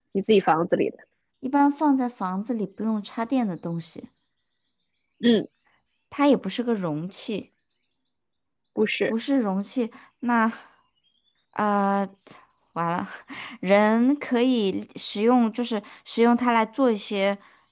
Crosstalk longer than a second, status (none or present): none